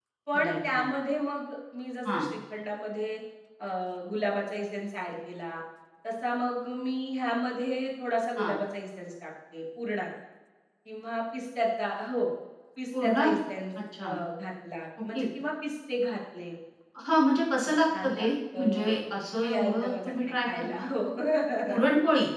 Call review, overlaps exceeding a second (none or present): present